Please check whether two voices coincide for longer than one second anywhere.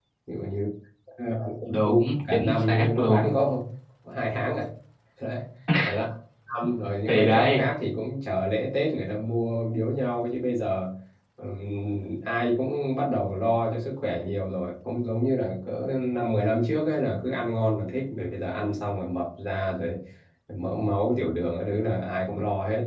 Yes, from 1.7 s

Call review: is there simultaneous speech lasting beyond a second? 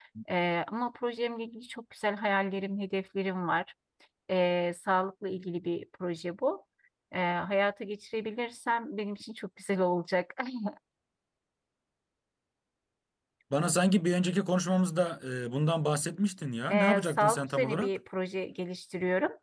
Yes, from 16.7 s

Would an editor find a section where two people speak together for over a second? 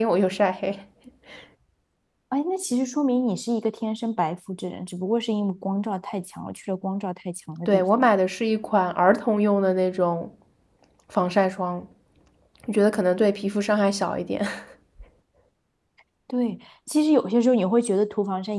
No

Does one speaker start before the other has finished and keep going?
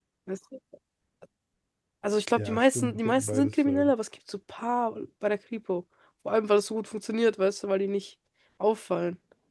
Yes, from 2.4 s

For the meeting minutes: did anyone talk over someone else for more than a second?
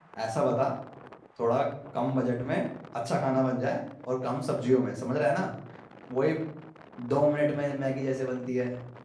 No

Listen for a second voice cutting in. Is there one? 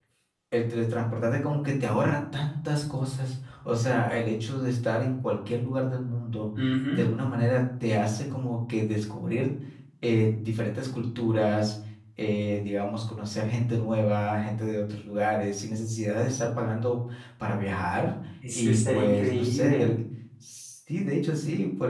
Yes, from 18.4 s

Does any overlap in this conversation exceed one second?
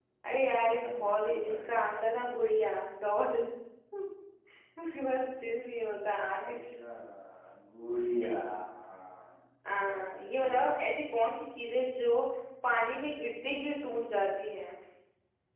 Yes, from 0.7 s

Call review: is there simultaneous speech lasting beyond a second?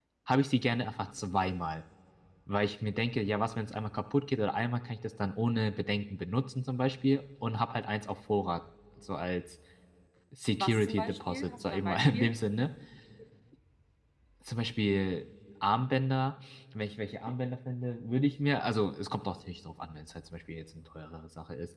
Yes, from 10.6 s

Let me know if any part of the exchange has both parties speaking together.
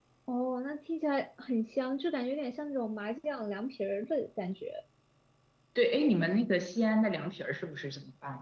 No

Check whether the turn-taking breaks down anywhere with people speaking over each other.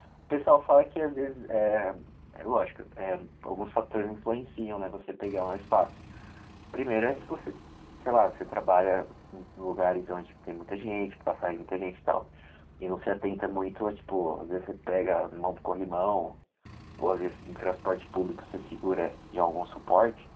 No

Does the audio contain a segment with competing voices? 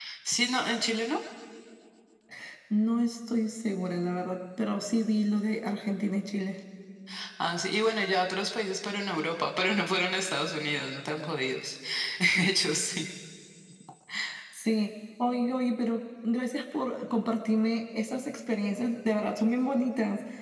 No

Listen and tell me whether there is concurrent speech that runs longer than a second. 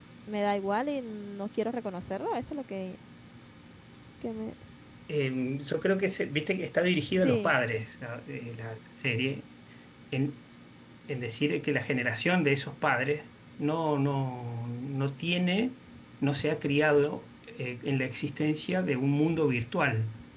No

